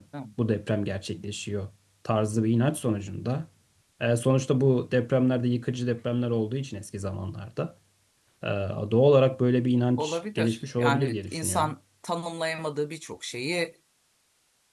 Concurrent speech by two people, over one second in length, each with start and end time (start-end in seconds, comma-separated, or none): 10.0-11.7